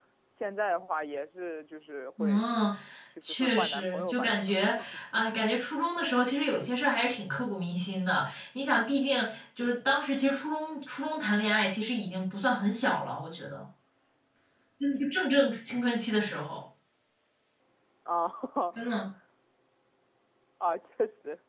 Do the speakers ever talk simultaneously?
Yes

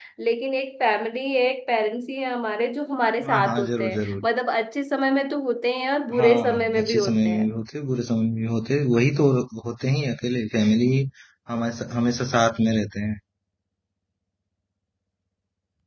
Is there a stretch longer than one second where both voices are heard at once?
Yes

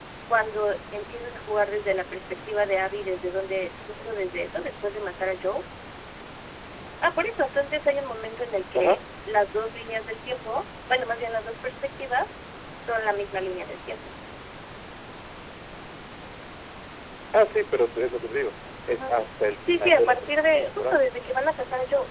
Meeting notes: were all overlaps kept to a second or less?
No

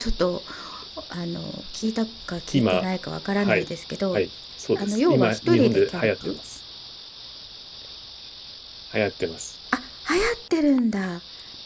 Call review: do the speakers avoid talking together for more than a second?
No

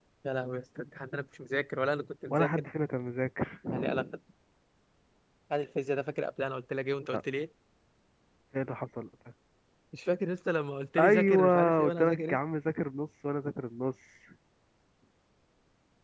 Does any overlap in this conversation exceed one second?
Yes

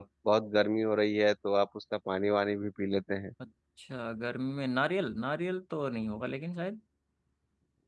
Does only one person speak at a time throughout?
Yes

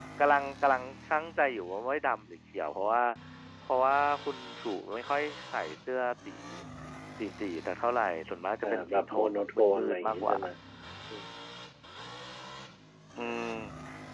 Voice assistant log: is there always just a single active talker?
No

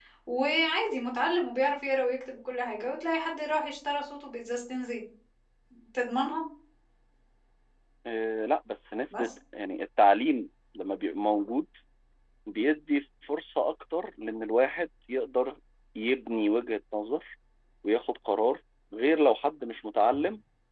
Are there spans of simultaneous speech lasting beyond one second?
No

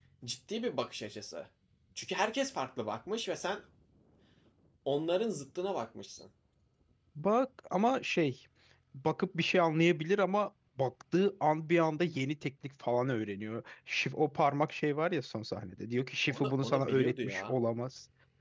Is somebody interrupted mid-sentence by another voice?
Yes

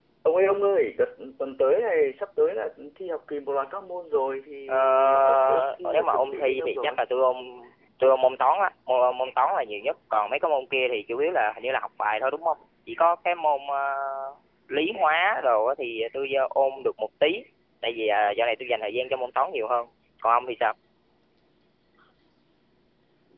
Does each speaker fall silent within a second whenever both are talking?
No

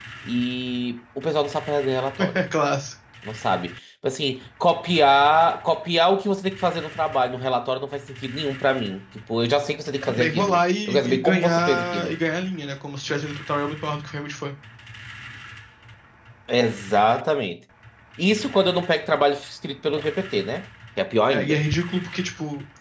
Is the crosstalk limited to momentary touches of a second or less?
No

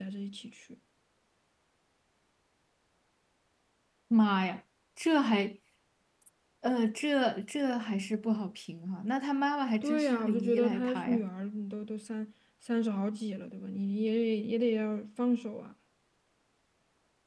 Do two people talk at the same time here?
Yes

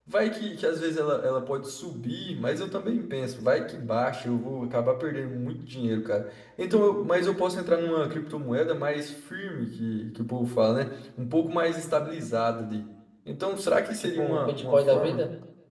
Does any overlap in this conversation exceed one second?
Yes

